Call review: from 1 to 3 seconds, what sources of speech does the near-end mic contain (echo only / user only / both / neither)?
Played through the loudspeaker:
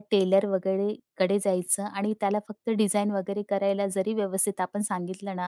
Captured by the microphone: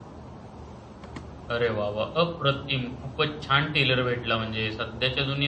user only